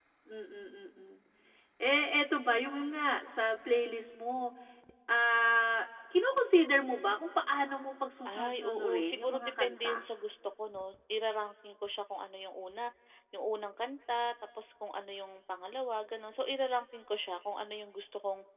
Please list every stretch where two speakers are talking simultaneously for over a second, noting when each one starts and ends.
8.4-10.1

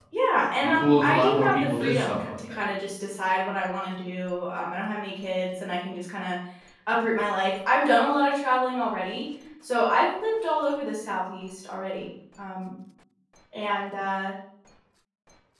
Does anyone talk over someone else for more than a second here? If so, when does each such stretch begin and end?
0.6-2.7

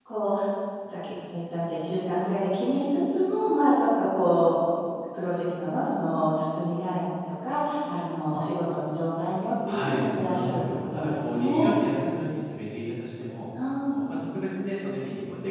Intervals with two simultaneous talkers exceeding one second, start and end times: 9.7-11.7

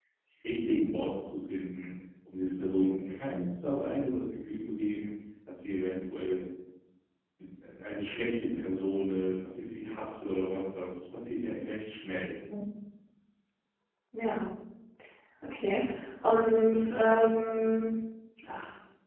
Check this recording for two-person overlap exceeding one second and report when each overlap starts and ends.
none

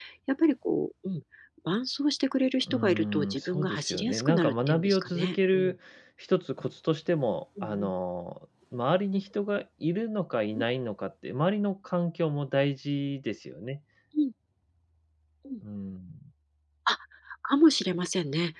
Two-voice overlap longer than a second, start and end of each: 2.7-5.7

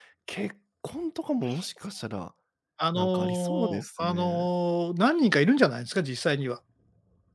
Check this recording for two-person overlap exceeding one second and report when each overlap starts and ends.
2.9-4.5

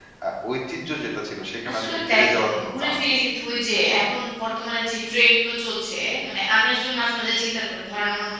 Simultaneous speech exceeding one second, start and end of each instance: 1.7-3.3

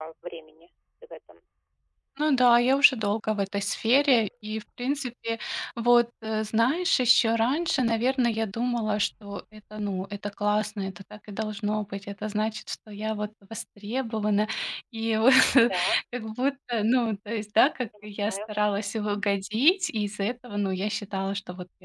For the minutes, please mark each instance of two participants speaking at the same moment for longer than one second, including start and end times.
none

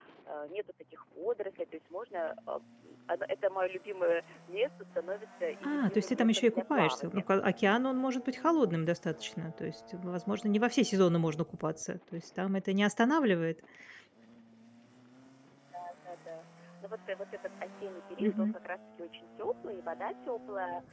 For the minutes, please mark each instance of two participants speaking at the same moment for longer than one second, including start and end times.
5.6-7.3

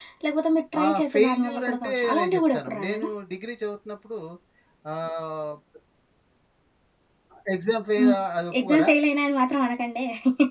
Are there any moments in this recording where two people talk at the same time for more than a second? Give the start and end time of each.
0.8-3.1

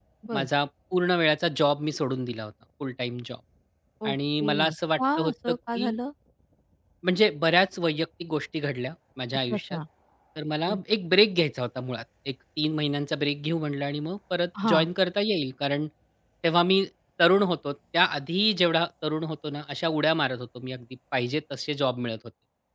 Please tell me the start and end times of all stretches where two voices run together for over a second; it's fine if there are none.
4.1-5.9

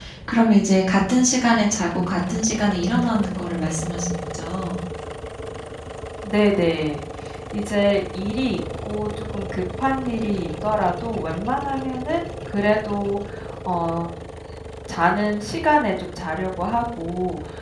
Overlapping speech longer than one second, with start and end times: none

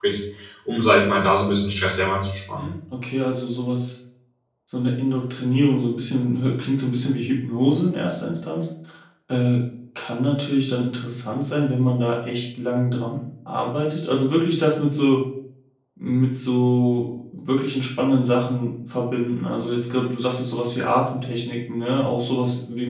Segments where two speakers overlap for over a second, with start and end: none

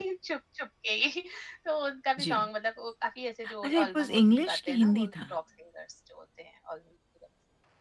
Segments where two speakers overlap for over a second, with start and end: 3.6-5.1

